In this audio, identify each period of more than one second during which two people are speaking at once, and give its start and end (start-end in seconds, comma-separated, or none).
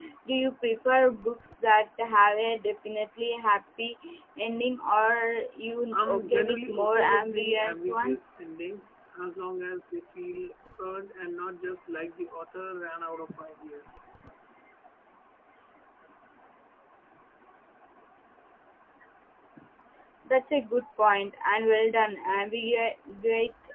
5.9-8.3